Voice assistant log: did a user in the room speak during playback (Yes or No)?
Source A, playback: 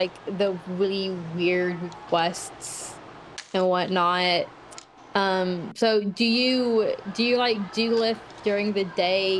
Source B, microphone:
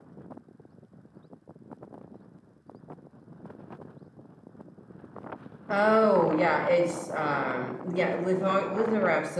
Yes